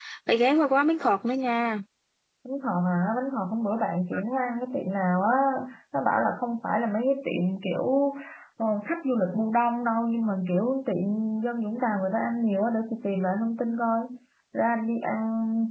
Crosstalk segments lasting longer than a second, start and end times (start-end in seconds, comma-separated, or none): none